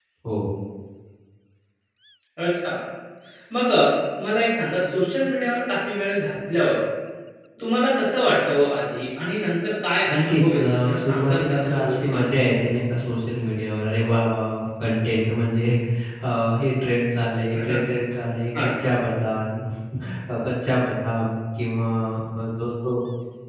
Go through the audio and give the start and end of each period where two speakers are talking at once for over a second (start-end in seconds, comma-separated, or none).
10.1-12.2